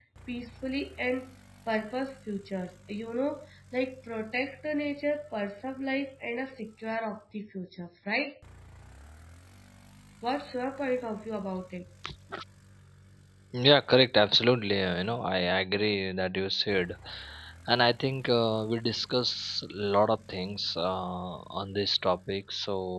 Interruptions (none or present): none